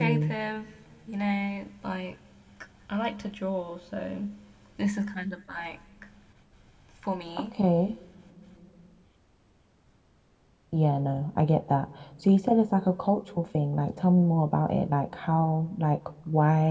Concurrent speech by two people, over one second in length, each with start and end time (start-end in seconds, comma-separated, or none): none